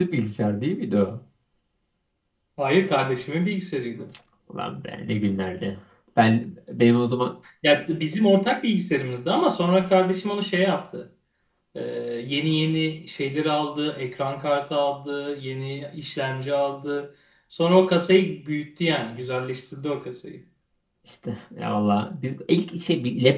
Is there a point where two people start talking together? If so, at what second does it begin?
none

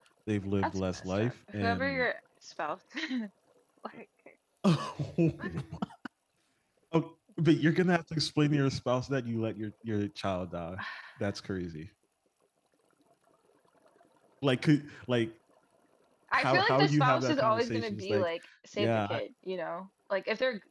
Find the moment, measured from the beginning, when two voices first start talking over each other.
0.6 s

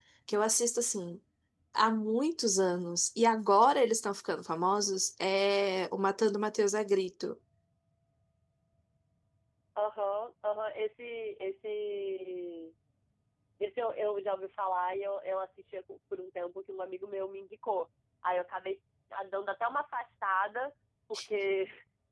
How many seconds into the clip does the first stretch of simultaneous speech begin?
none

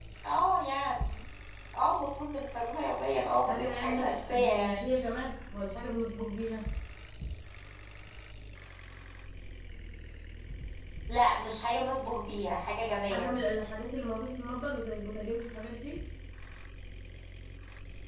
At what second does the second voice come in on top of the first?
3.5 s

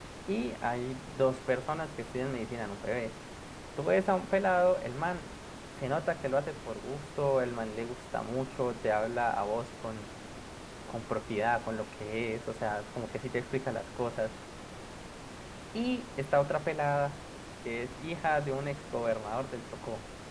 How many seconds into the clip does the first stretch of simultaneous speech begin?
none

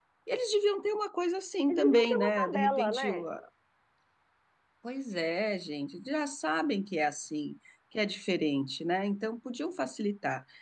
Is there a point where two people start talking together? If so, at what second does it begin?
1.7 s

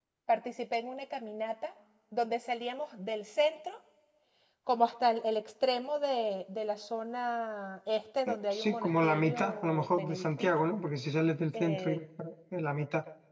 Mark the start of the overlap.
8.3 s

